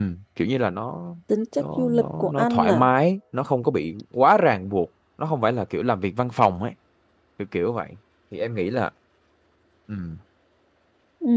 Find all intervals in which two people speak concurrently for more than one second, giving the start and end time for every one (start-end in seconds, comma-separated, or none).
1.6-2.8